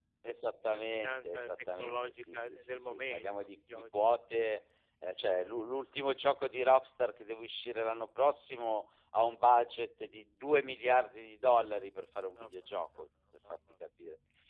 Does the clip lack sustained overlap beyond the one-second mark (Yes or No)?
No